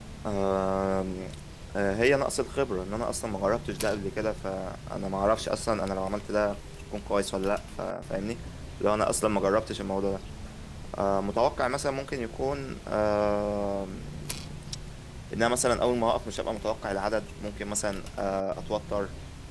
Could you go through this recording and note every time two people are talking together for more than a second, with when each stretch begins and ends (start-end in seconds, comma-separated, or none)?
none